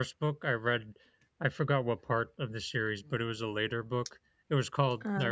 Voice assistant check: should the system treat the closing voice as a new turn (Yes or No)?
No